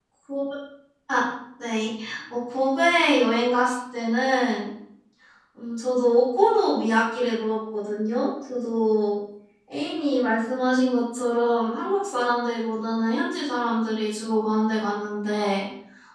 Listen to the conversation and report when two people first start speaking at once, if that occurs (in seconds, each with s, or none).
none